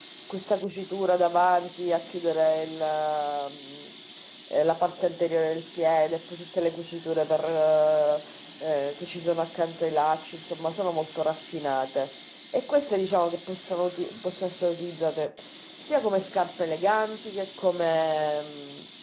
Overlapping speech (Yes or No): No